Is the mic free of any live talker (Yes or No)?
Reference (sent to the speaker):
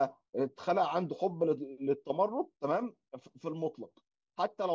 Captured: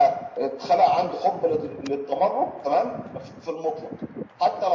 Yes